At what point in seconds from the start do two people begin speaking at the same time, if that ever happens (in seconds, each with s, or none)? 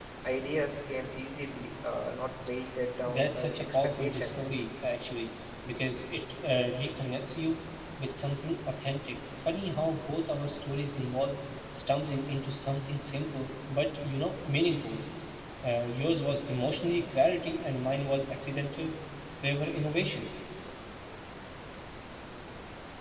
3.1 s